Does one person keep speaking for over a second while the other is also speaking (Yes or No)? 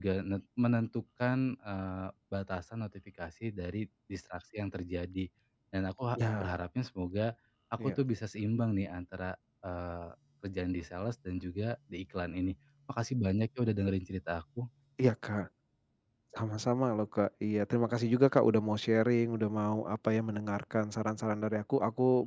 No